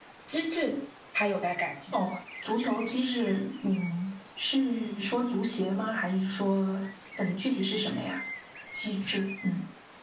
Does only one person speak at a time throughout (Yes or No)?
Yes